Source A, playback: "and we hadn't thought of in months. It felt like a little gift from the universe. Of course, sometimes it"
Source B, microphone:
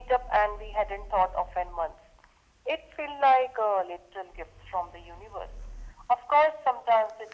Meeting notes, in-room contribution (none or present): none